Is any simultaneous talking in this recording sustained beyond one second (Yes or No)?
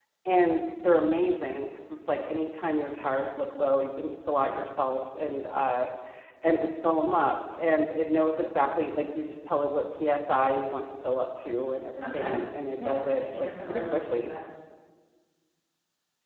Yes